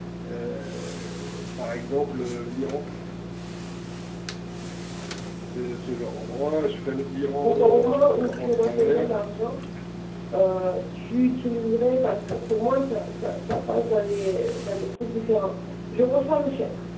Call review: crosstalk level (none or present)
present